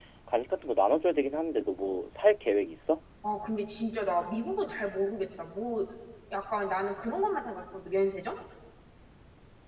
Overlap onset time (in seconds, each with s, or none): none